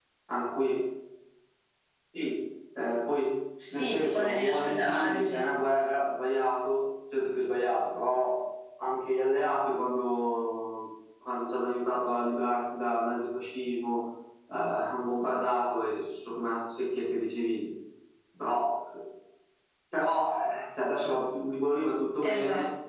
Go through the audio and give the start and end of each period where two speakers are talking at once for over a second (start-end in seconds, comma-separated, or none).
3.7-5.4